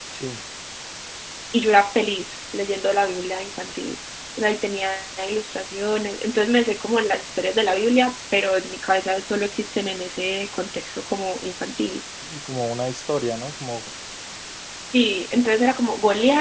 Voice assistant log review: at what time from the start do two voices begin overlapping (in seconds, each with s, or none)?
none